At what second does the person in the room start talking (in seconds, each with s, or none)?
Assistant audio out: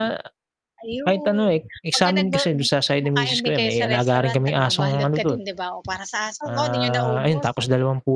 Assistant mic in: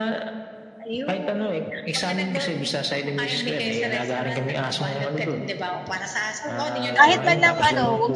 7.0 s